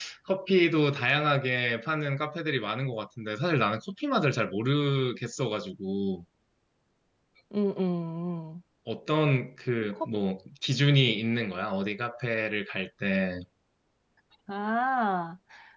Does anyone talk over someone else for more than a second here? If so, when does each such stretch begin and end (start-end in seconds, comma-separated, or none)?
none